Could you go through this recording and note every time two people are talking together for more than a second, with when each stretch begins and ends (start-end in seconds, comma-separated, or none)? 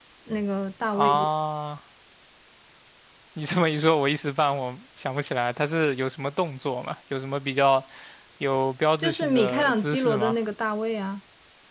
9.0-10.3